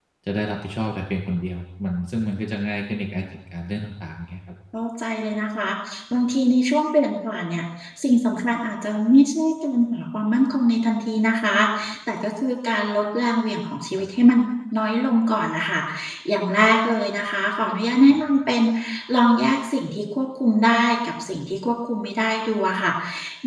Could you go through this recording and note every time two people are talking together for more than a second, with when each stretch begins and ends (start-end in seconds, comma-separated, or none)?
none